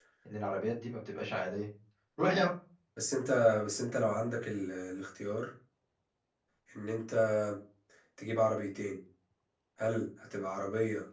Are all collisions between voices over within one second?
Yes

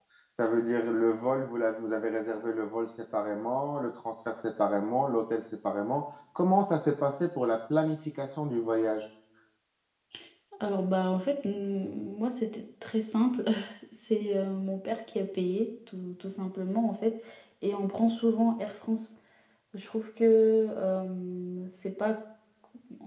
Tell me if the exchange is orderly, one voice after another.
Yes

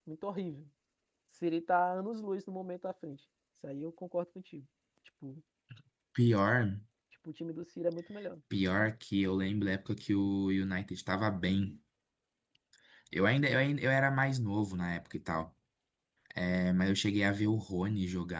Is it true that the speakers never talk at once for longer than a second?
Yes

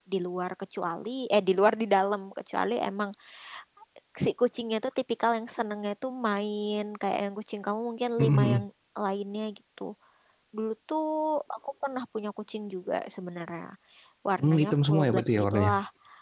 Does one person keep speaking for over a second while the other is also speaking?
Yes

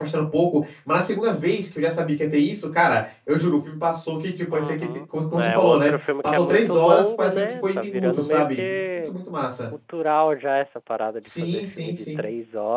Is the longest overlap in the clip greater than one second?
Yes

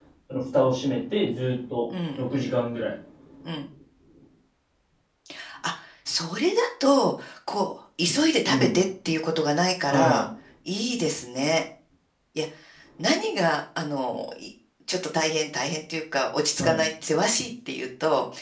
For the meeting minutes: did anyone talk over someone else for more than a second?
No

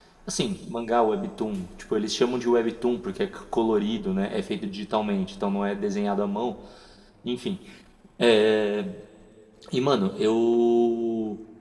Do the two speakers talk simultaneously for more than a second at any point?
No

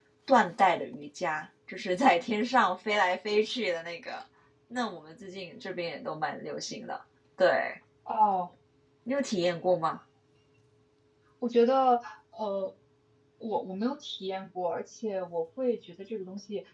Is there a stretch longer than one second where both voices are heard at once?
No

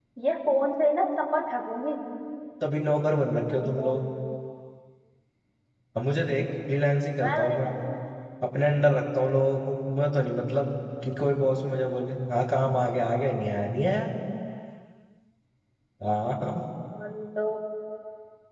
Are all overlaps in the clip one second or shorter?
Yes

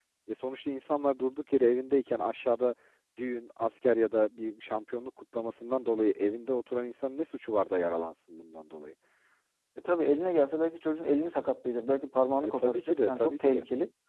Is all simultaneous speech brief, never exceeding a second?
No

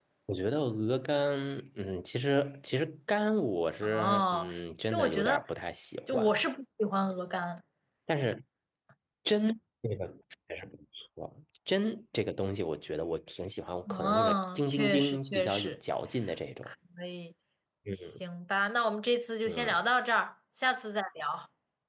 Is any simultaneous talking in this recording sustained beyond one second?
Yes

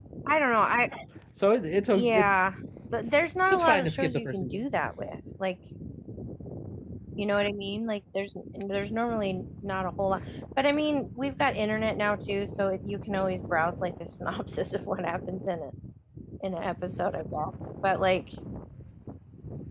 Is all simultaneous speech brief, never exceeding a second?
No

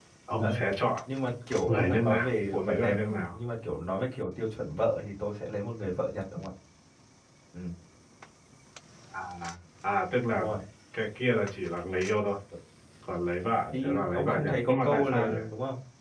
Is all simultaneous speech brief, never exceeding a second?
No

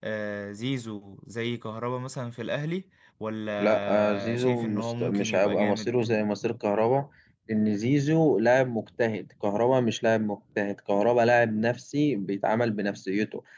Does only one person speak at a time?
No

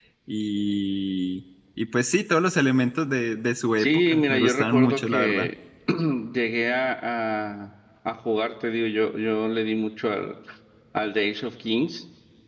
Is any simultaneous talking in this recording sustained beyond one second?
Yes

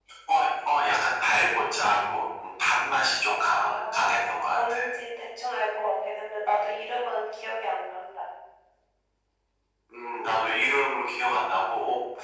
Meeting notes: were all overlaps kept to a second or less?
No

